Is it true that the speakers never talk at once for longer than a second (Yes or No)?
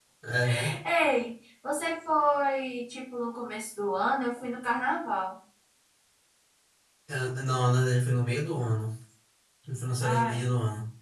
Yes